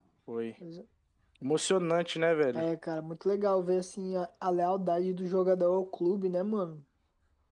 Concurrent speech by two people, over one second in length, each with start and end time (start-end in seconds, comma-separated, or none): none